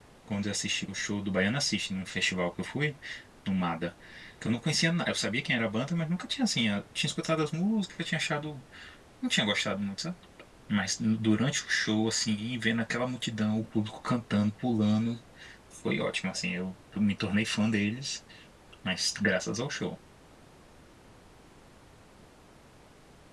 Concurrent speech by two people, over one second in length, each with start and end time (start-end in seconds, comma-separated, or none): none